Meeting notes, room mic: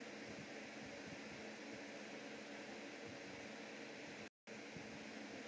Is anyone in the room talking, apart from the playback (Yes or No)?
No